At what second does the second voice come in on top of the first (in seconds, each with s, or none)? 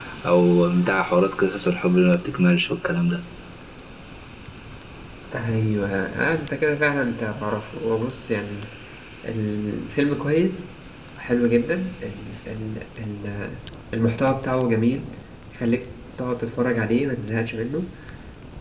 none